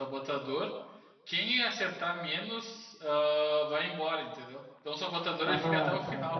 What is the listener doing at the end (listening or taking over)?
taking over